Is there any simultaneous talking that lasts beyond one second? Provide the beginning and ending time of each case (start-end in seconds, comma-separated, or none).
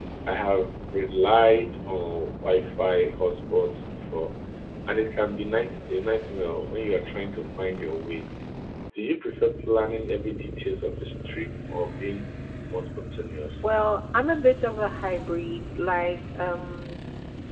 none